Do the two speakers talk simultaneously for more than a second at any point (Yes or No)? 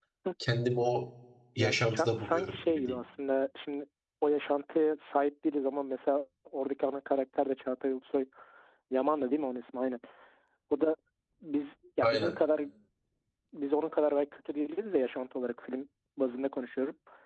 Yes